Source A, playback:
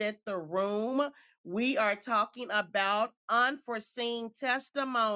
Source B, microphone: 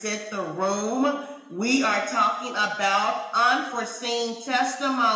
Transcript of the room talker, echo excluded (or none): none